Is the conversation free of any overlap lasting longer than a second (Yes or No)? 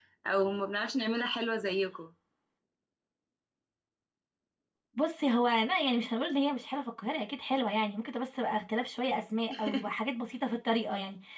Yes